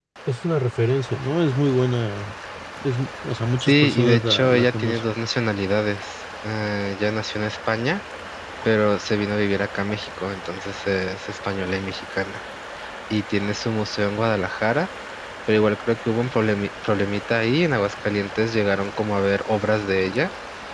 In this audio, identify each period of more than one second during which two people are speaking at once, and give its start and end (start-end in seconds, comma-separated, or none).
3.6-5.0